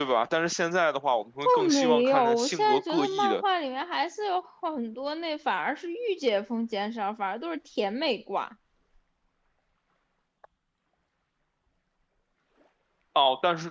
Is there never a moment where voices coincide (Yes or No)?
No